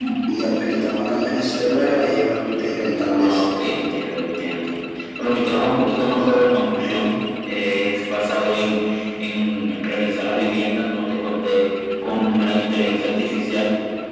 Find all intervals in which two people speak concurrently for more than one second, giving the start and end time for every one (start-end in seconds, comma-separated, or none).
none